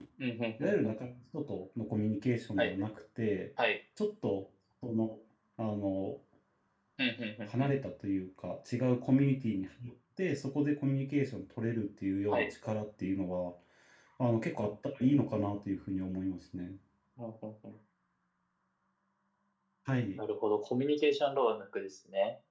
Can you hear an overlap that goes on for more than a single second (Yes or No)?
No